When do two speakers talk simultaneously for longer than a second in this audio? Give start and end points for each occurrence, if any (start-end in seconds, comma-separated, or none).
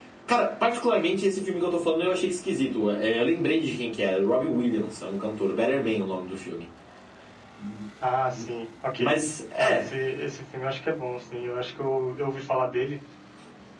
none